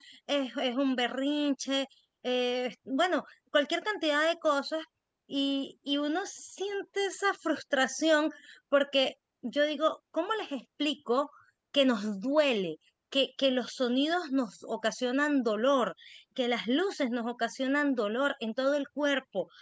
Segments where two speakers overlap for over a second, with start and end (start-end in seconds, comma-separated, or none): none